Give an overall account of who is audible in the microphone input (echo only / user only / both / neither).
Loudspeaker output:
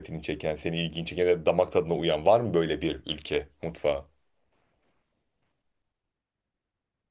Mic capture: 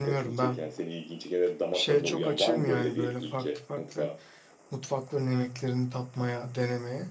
both